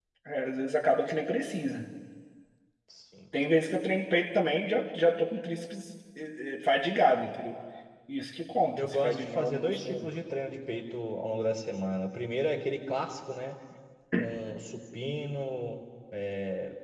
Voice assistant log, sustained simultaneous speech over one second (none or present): present